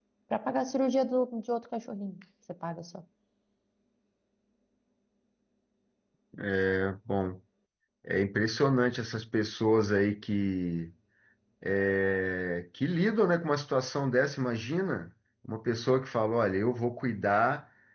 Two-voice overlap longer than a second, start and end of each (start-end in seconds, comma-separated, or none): none